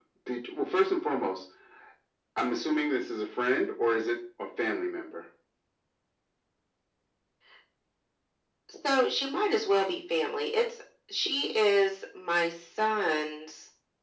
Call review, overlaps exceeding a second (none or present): none